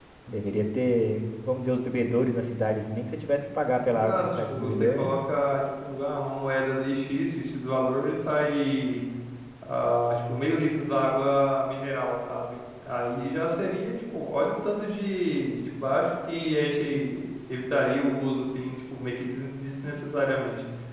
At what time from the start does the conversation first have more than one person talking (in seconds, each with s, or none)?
3.8 s